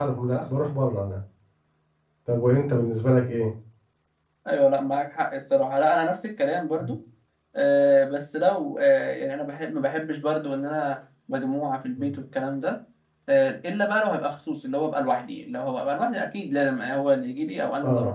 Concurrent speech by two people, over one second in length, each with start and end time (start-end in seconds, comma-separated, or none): none